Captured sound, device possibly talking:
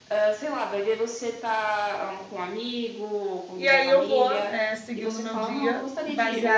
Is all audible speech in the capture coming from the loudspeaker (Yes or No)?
No